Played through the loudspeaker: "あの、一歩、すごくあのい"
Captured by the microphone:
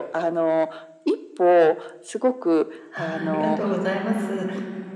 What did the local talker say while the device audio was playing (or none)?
あ、はい、ありがとうございます。